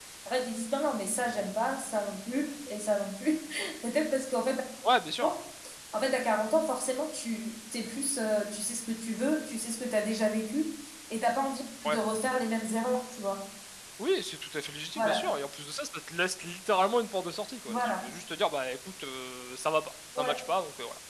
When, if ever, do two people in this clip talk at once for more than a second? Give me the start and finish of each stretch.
none

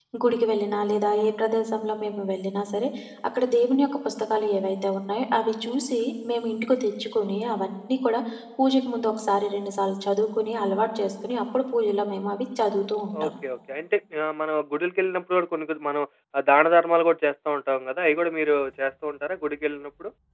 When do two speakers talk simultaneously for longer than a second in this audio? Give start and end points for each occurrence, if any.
none

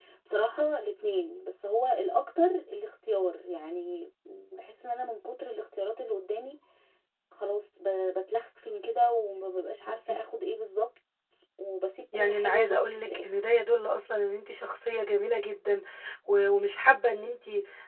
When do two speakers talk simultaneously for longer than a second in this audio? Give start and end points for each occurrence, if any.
12.1-13.4

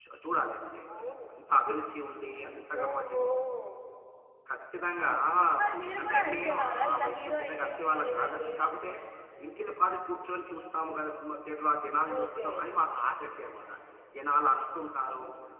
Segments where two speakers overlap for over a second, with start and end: 5.8-8.5

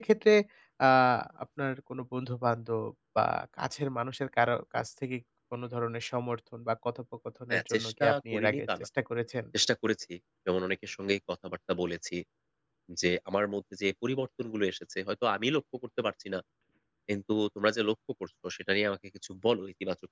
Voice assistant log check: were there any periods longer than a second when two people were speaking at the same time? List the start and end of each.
7.5-8.9

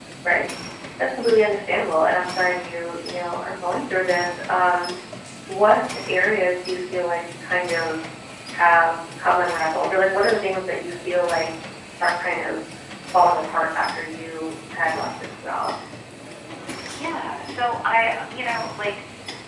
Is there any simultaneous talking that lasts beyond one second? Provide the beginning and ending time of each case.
none

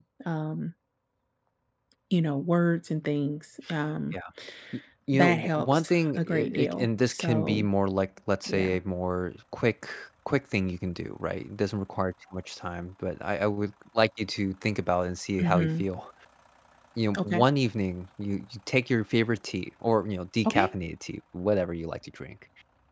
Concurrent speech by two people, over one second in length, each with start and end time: 5.1-7.7

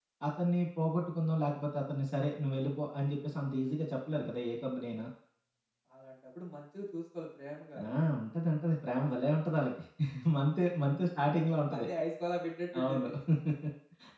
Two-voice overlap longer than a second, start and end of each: none

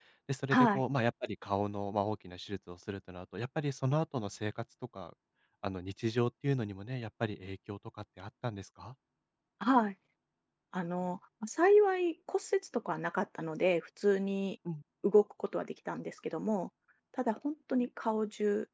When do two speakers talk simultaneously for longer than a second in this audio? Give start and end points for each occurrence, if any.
none

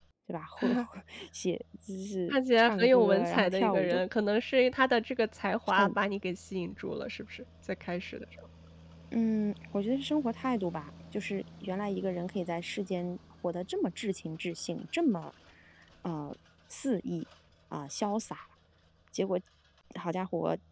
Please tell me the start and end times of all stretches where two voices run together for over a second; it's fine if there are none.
2.3-4.0

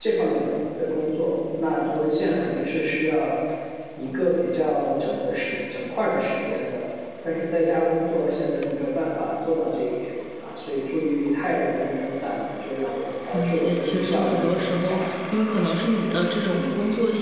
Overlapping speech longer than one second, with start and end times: 13.3-15.0

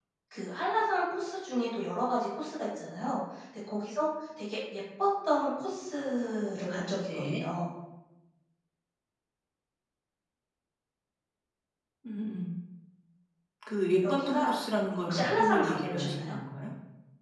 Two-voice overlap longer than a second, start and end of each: 14.1-16.3

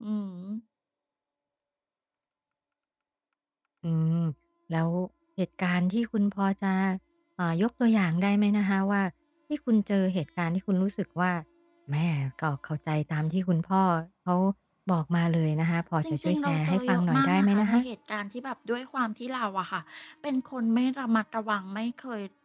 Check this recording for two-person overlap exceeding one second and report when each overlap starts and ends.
16.0-17.8

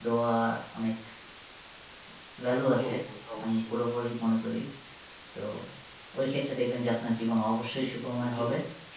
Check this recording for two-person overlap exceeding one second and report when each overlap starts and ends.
none

